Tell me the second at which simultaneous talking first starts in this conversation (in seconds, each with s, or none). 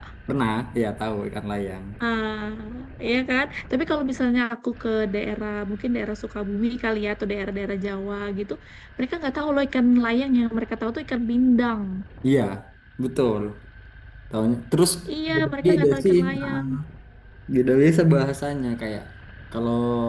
15.3 s